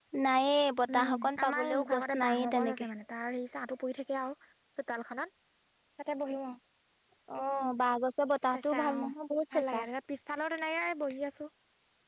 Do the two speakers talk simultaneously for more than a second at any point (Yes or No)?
Yes